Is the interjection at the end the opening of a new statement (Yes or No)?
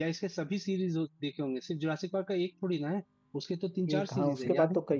Yes